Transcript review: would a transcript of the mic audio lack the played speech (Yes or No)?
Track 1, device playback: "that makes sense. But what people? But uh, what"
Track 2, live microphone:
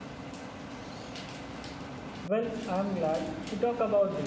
Yes